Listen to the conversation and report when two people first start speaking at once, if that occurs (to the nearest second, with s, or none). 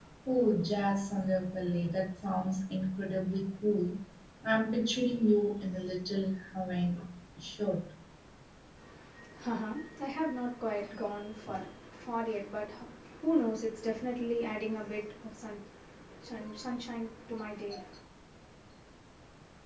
none